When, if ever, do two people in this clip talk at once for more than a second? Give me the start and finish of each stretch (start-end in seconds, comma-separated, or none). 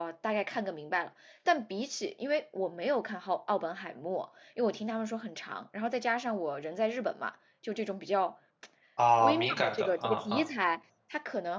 9.2-10.4